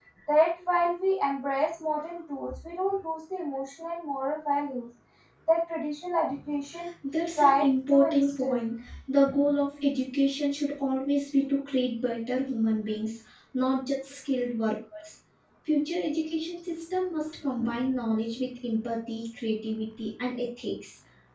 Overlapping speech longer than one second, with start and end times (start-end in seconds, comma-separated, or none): 7.4-8.7